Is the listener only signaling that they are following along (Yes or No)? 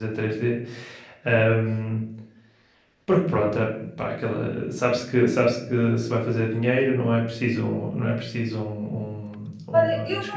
No